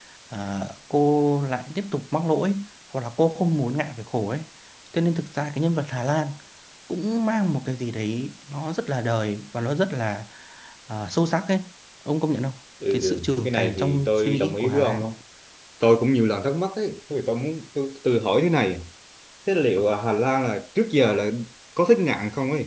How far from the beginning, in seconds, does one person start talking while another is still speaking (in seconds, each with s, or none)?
12.9 s